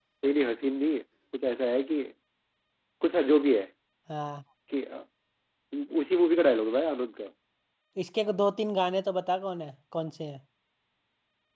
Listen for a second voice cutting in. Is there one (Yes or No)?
No